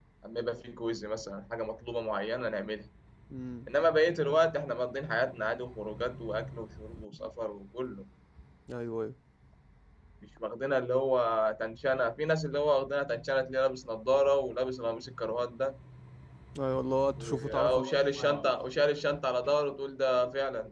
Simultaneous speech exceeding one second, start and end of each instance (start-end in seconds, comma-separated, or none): 17.2-18.5